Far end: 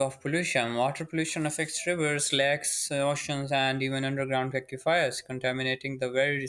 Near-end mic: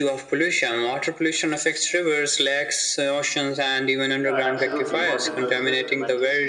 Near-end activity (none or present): present